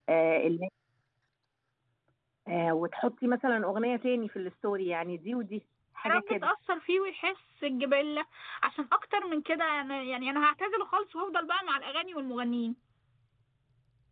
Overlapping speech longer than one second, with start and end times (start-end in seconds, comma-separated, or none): none